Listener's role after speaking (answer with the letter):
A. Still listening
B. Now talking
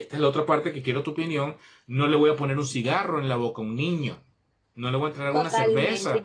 B